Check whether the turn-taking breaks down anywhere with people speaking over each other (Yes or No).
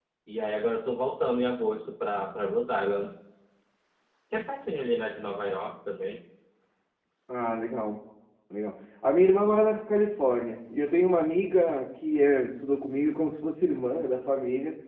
No